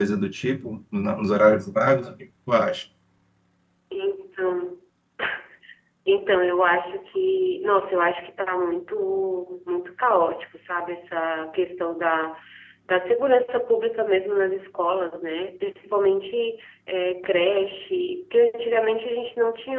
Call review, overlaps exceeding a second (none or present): none